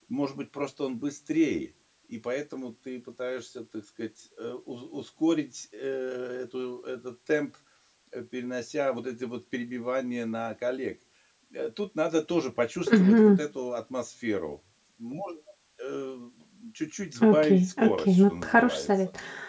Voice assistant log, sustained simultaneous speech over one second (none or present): present